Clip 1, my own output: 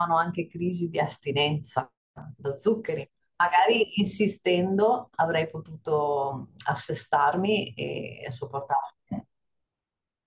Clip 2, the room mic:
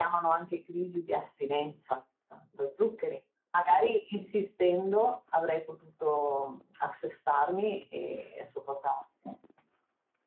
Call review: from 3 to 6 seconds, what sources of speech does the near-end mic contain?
echo only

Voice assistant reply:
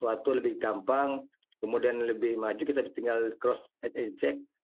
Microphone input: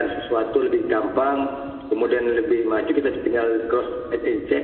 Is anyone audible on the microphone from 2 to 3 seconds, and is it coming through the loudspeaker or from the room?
echo only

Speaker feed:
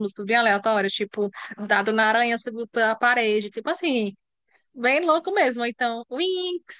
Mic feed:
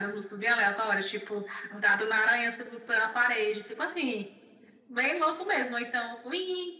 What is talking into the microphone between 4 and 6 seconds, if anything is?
echo only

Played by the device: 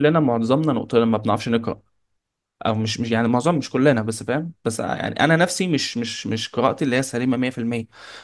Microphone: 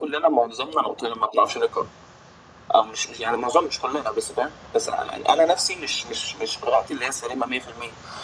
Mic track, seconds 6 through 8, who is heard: echo only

